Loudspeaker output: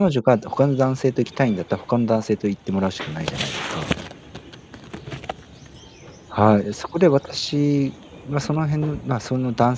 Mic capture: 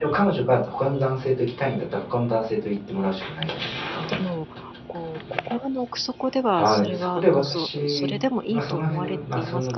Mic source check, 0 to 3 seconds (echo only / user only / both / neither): echo only